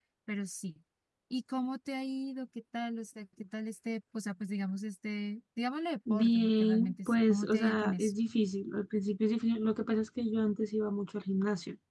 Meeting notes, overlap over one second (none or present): present